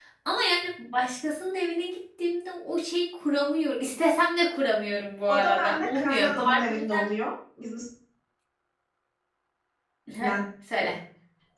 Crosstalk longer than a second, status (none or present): present